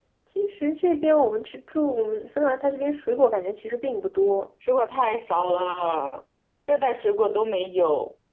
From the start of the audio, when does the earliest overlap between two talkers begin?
none

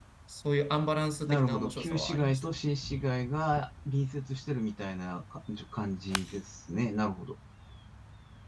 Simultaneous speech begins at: 1 s

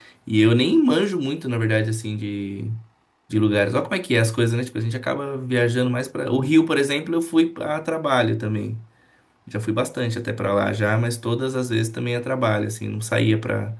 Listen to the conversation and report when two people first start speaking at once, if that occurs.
none

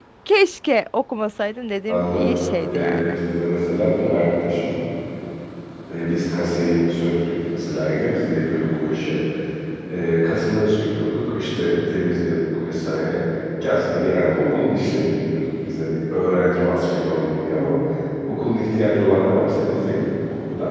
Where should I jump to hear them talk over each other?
2 s

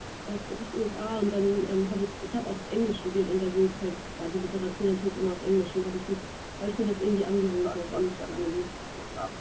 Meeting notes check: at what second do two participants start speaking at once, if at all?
7 s

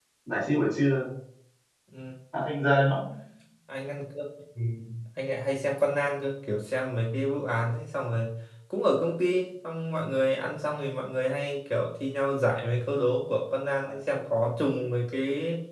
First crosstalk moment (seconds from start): none

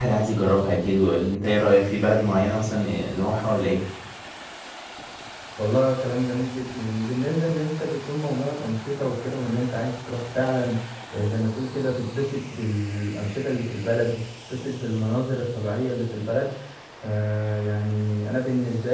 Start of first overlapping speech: none

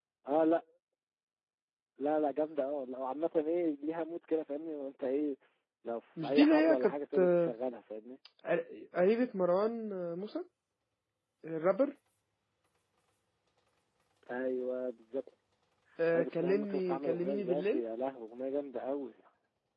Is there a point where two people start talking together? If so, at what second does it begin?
6 s

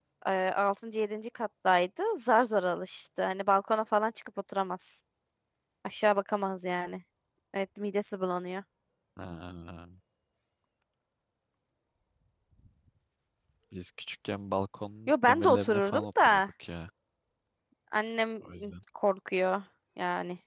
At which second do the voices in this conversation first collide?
15 s

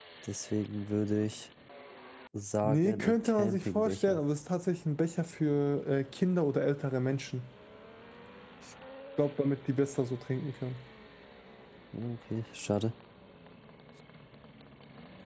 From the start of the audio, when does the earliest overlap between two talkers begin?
3 s

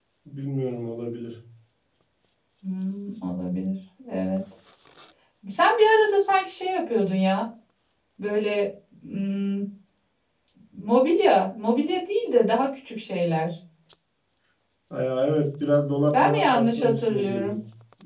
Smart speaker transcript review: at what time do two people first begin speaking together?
16 s

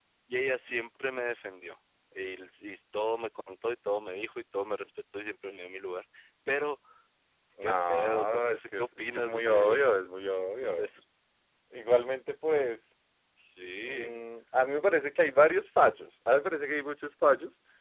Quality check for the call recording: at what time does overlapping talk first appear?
8 s

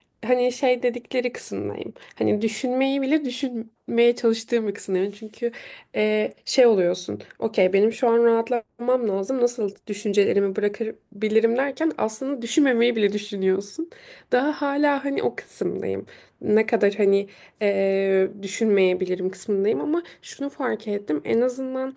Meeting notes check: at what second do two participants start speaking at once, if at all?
none

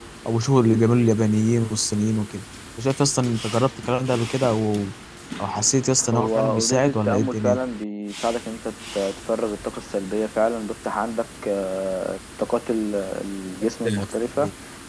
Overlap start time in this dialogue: 6 s

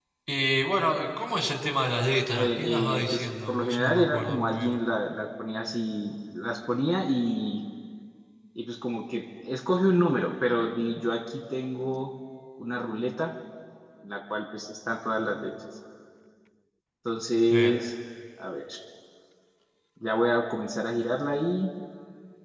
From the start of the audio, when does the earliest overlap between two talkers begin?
2 s

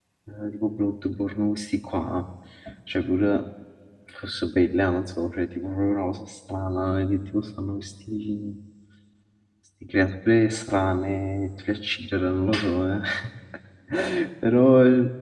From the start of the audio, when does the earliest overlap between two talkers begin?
none

